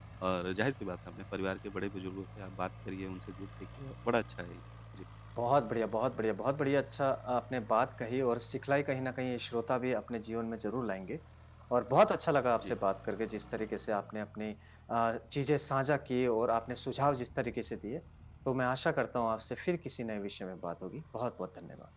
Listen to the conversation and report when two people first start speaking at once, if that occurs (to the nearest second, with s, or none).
none